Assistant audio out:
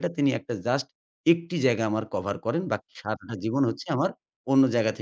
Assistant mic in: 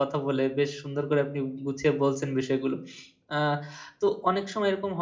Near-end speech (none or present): present